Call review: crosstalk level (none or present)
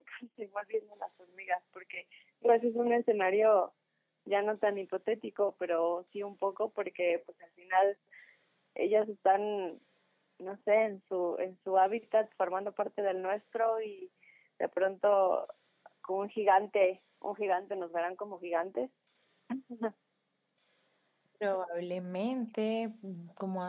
none